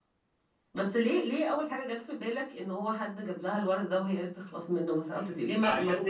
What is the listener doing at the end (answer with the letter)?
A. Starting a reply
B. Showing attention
A